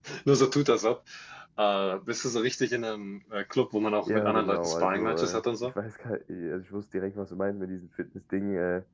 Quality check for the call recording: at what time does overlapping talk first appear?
4.0 s

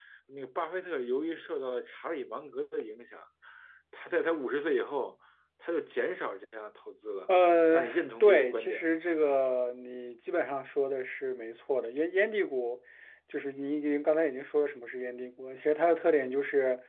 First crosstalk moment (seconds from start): 7.7 s

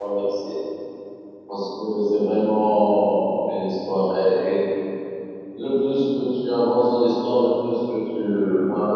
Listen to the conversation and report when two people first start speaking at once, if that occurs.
none

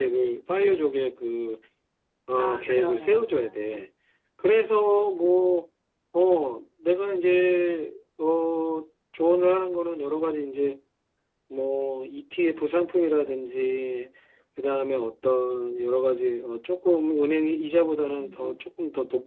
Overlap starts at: 2.4 s

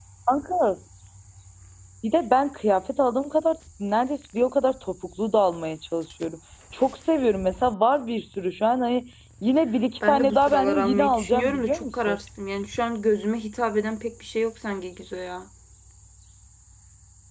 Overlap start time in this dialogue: 10.0 s

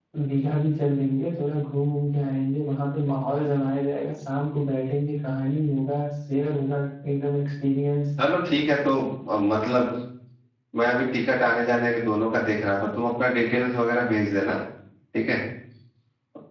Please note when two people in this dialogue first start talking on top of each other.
none

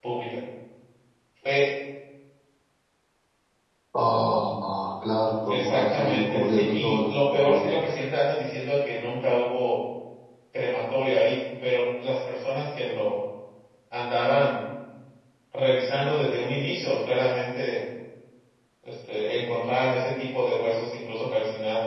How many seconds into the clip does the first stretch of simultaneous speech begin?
5.5 s

